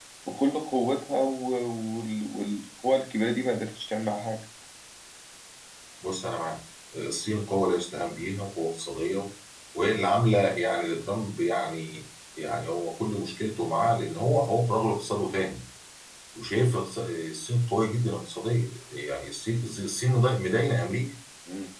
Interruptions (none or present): none